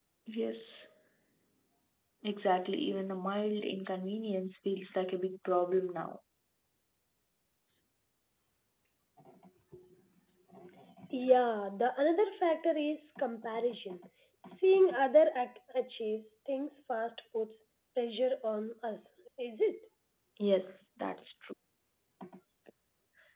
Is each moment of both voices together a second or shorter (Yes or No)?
Yes